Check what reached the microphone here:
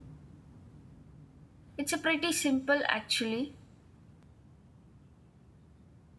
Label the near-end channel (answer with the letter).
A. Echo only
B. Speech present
B